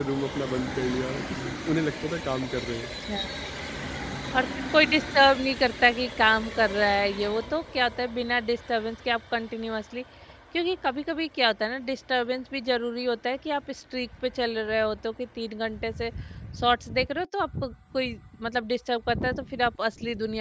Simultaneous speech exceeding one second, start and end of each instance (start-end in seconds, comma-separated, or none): none